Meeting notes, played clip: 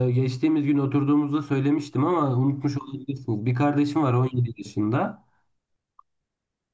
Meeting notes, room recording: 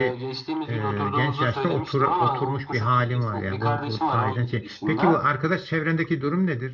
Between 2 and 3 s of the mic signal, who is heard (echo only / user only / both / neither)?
both